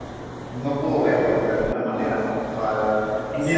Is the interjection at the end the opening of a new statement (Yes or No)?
No